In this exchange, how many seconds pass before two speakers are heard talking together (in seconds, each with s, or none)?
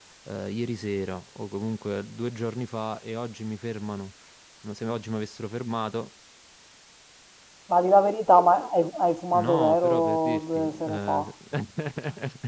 9.3 s